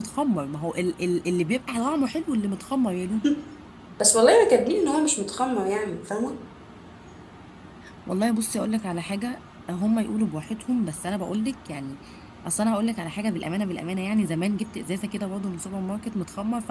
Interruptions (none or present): none